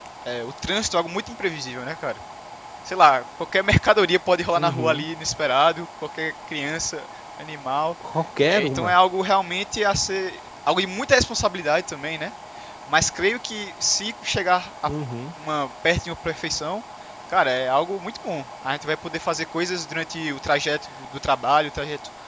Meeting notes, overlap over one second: none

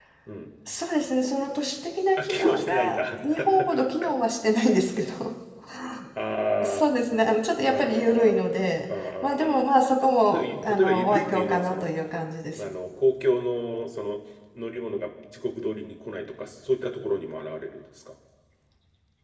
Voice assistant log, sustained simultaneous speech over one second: present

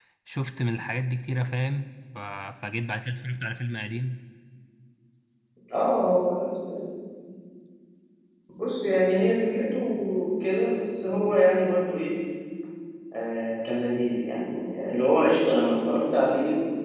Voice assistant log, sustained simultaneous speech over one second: none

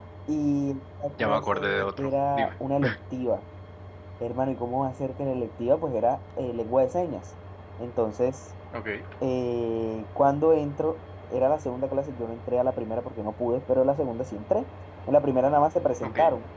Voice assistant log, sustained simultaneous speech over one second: present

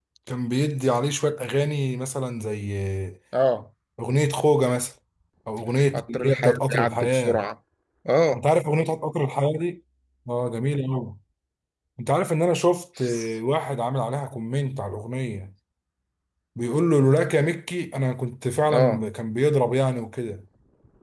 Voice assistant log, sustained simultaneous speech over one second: present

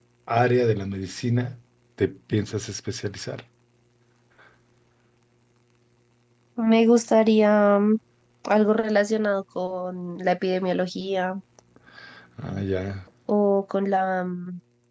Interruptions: none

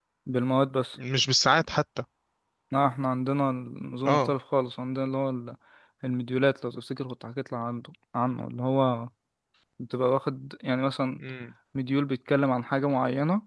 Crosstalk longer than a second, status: none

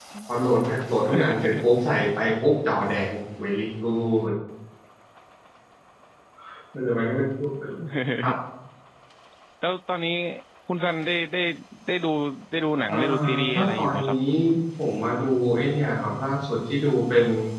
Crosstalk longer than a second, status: present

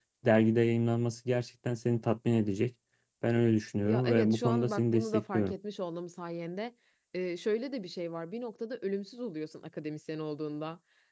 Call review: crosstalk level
present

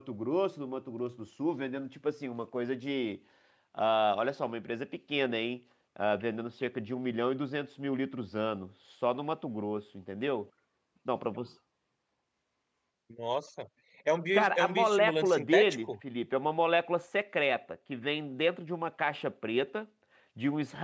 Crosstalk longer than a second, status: present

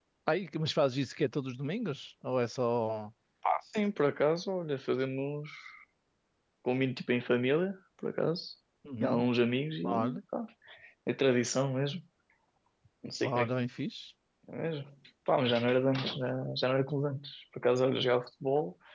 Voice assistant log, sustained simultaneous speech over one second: none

